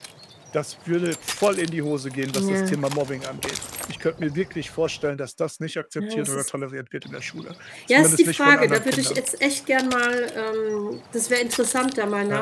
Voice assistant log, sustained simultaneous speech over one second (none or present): present